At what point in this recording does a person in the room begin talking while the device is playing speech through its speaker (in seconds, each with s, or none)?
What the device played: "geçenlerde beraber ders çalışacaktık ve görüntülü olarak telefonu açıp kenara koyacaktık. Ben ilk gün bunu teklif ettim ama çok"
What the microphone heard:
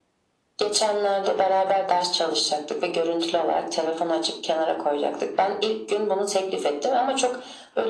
none